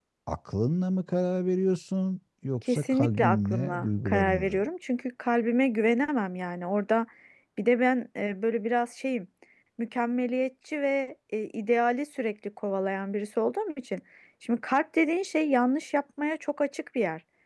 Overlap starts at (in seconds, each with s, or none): 2.7 s